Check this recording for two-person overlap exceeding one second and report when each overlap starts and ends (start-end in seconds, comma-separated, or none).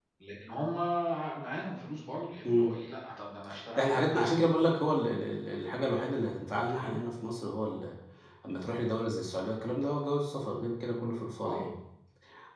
none